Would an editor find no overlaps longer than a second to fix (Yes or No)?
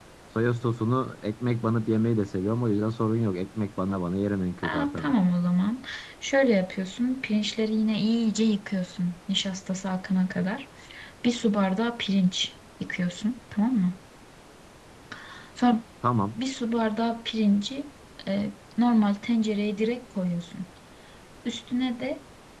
Yes